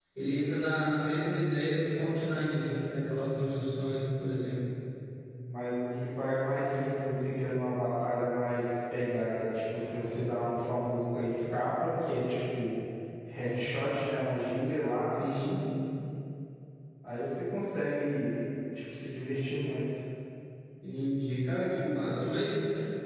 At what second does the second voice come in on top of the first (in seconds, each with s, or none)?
none